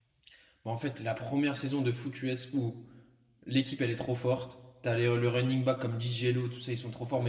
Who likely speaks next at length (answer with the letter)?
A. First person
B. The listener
A